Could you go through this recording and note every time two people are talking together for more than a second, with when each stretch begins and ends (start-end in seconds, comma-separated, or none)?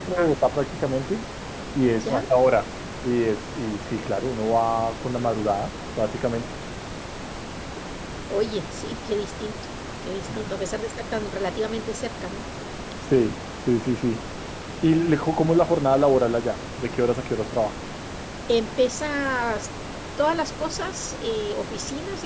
none